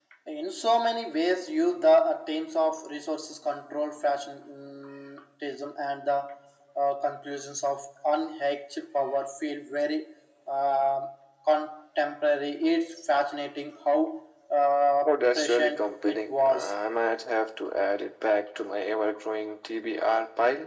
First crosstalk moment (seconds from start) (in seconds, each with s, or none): 15.1 s